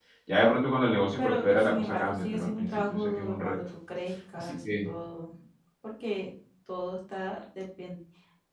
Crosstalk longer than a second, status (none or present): present